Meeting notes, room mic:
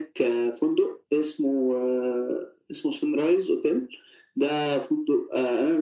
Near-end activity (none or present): none